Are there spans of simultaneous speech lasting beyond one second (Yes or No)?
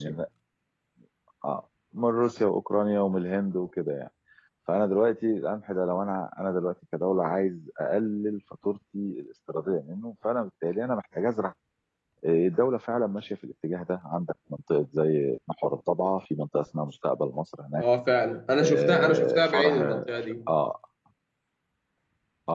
Yes